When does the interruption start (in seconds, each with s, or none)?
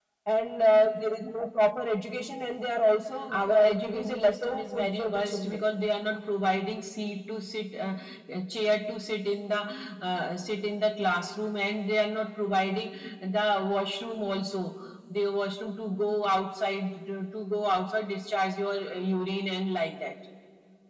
3.3 s